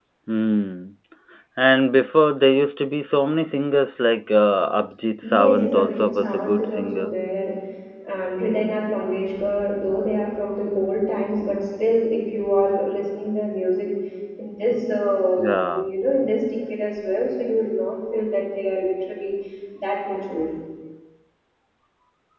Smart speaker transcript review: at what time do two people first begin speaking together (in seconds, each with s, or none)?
5.2 s